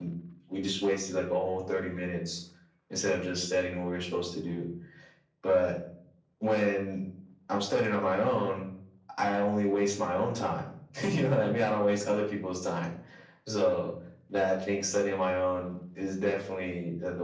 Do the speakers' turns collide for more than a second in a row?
No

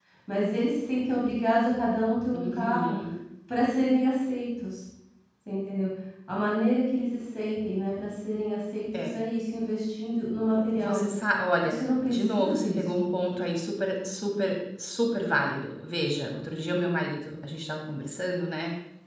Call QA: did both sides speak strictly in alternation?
No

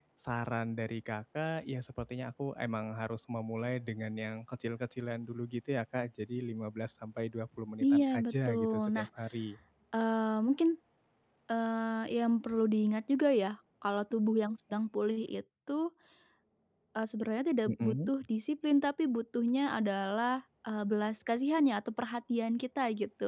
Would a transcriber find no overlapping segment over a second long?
No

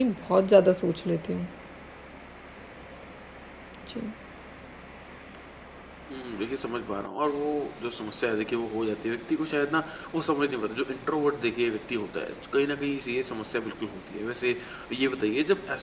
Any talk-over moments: No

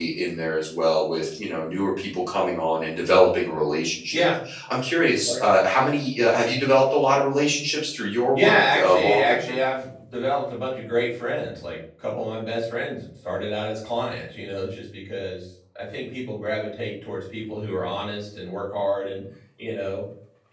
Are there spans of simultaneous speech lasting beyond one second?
Yes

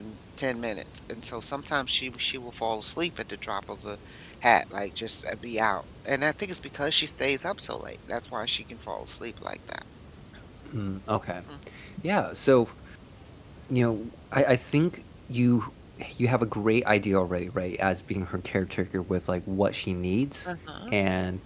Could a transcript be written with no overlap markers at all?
Yes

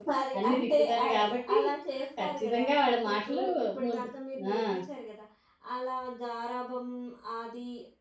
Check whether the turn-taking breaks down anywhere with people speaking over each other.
Yes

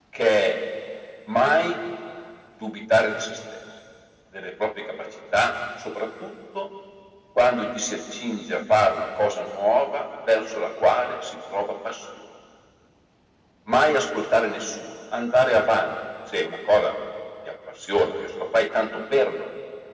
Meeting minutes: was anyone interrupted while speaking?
No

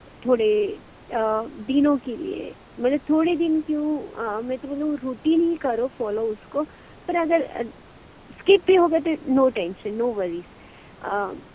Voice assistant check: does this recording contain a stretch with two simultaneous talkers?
No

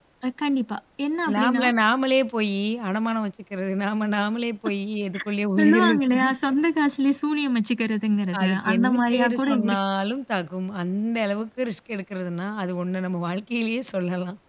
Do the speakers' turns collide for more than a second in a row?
Yes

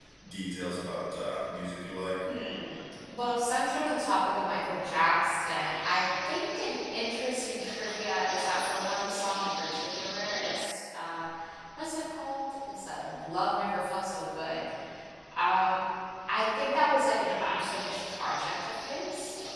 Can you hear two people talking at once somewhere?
No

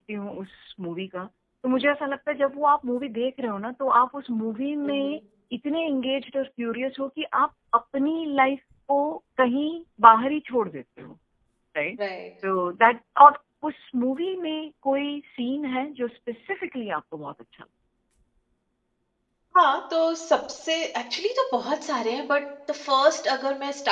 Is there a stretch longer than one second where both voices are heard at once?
No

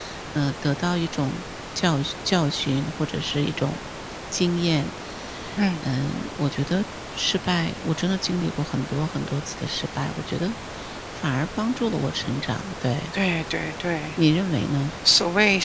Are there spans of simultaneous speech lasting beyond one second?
No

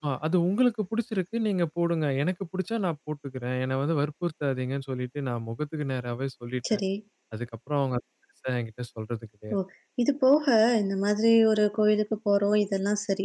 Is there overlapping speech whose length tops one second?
No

